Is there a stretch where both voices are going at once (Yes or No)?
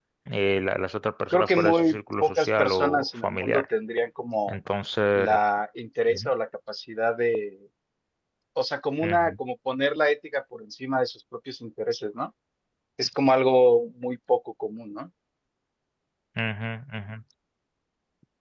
Yes